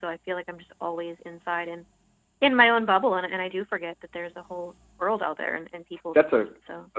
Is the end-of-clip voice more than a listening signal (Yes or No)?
Yes